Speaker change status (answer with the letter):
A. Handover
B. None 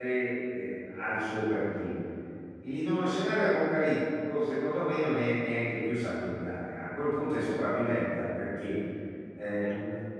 B